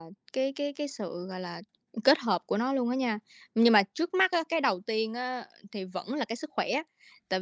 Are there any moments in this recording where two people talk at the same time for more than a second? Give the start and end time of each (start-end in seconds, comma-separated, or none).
none